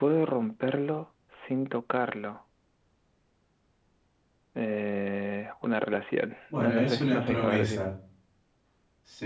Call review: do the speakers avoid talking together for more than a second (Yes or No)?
No